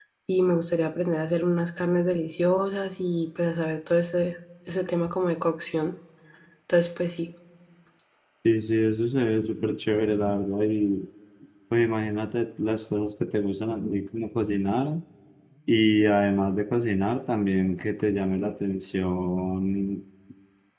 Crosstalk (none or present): none